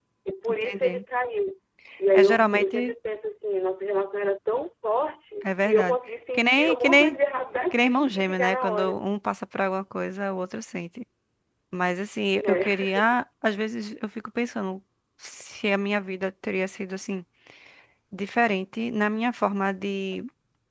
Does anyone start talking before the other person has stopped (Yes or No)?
Yes